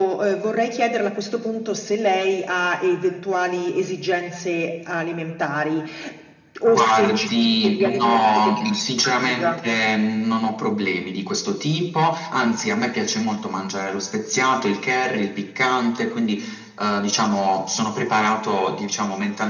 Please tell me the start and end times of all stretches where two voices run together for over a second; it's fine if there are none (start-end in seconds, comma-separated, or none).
6.7-9.6